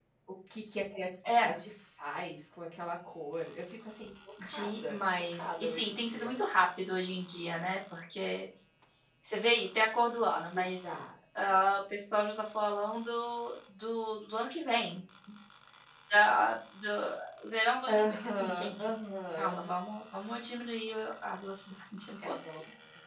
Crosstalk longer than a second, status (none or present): present